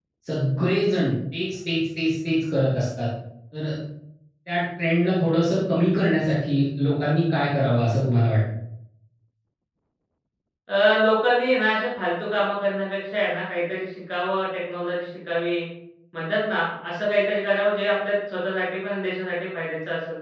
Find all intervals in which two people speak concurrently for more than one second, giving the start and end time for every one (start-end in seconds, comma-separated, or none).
none